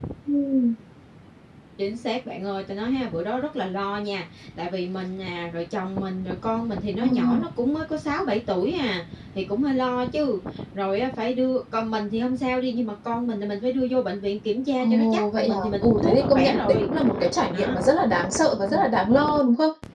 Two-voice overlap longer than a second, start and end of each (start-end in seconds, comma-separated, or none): 14.8-16.9